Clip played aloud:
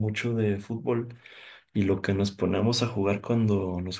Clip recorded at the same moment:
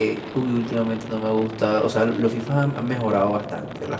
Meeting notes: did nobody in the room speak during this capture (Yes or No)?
No